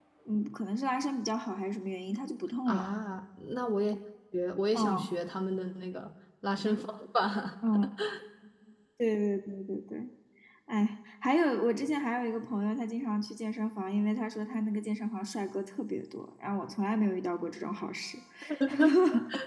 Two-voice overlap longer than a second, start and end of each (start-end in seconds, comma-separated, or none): none